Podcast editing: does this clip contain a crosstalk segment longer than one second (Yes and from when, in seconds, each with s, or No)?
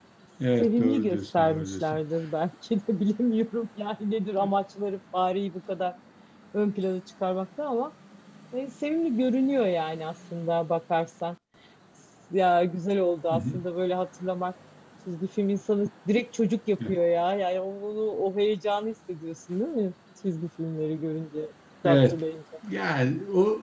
Yes, from 0.6 s